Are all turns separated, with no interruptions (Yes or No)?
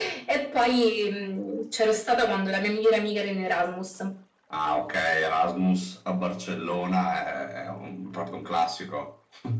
Yes